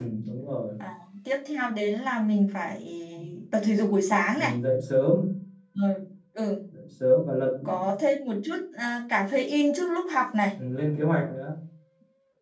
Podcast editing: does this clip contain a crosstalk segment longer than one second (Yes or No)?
No